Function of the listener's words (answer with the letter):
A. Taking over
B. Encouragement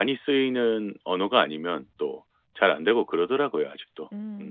A